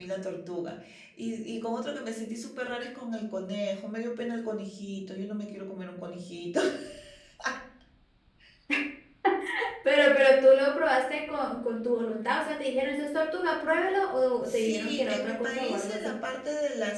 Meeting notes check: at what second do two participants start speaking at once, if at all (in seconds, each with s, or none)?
14.5 s